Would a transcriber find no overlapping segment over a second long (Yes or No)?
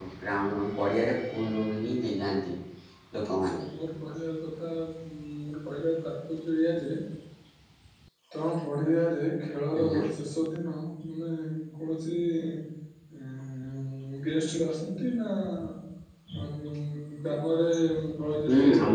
Yes